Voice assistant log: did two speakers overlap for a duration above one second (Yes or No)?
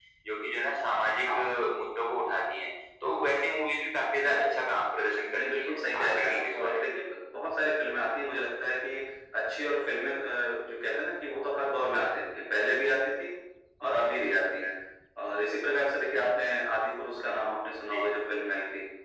Yes